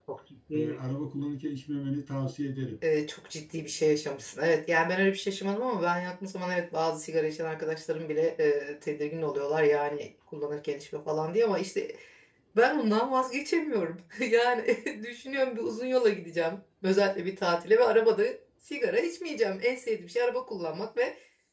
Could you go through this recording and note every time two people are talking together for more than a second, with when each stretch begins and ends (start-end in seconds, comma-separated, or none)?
none